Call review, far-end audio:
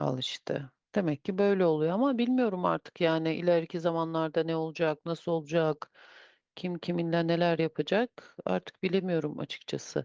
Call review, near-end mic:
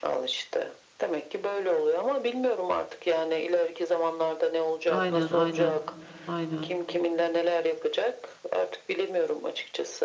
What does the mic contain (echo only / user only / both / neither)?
both